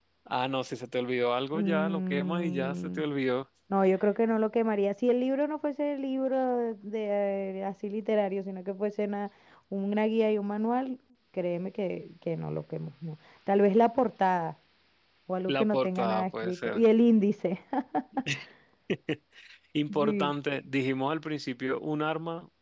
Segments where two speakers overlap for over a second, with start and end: 1.5-3.0, 15.5-16.8

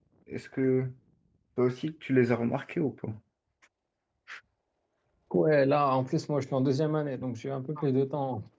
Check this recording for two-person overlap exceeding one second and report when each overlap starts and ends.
none

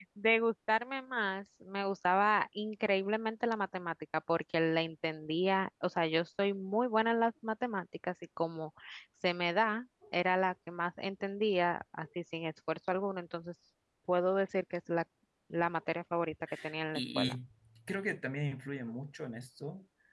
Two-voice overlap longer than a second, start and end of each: none

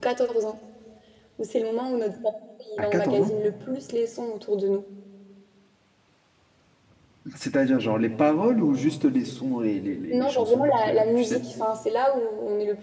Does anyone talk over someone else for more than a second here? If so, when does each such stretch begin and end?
10.1-11.4

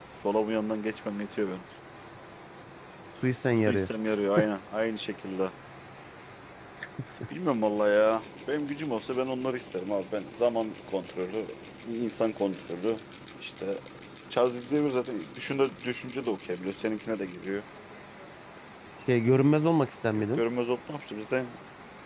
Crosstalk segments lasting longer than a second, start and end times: none

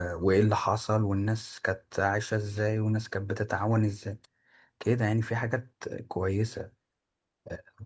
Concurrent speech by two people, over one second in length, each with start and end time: none

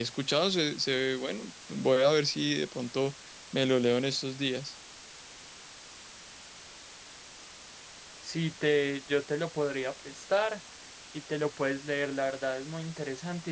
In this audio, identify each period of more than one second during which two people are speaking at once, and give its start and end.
none

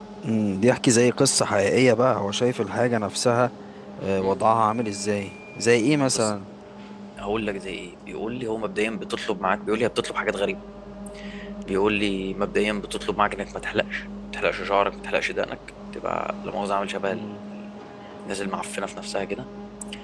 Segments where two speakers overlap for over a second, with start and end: none

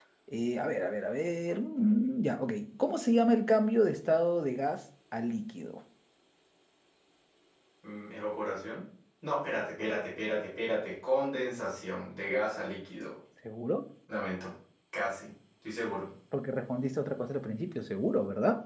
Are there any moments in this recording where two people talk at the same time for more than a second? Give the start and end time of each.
none

